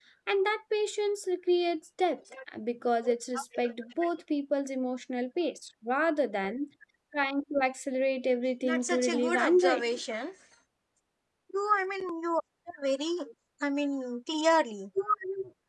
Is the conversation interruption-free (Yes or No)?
No